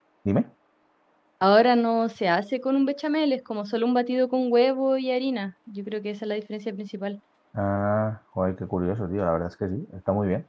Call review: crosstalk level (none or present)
none